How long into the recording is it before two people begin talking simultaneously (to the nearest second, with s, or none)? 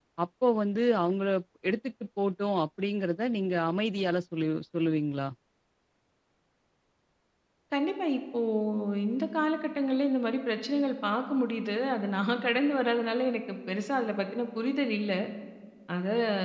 none